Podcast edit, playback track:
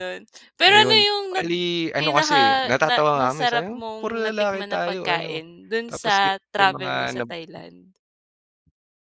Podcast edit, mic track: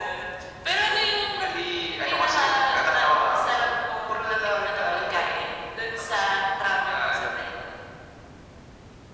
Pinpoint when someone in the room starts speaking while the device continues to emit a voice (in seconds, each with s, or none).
none